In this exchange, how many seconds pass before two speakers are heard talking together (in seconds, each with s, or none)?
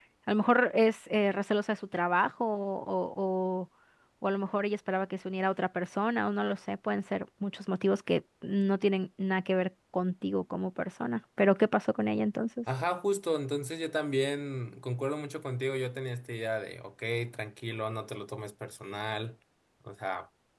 none